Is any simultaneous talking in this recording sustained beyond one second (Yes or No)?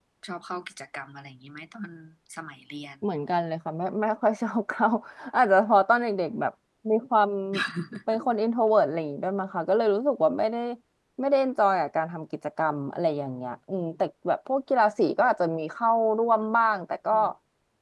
No